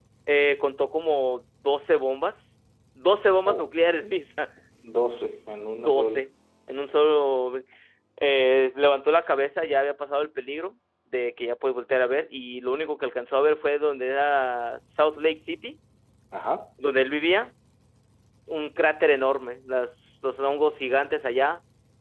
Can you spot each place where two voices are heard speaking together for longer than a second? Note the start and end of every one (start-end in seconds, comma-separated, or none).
none